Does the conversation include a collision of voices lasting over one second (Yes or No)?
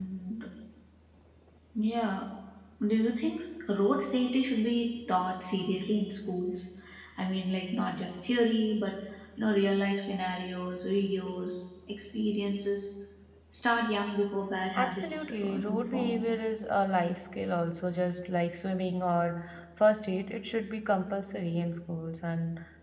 Yes